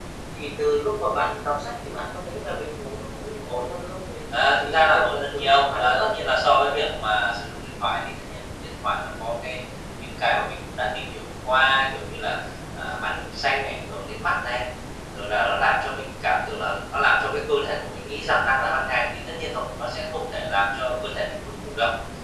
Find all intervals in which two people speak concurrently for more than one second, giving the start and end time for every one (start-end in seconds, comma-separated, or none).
4.6-6.4